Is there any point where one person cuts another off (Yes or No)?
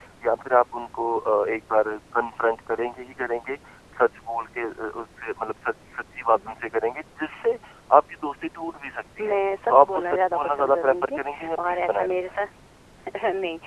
Yes